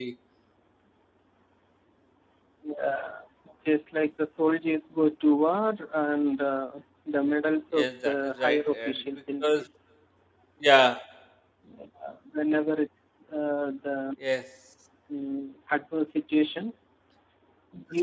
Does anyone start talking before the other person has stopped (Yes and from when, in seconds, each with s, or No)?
Yes, from 7.8 s